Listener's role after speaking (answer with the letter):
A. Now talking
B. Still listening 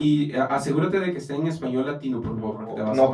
A